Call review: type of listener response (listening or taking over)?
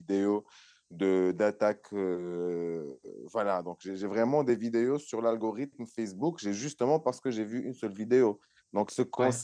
listening